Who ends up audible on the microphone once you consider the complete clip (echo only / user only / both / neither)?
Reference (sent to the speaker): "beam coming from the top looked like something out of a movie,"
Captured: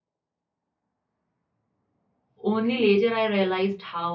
user only